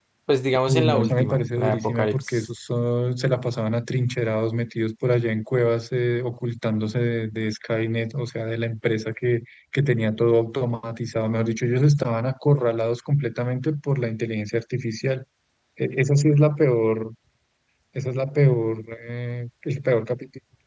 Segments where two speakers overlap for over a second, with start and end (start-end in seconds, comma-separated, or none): 0.7-2.5